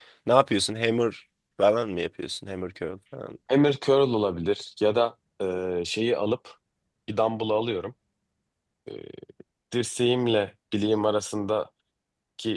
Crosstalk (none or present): none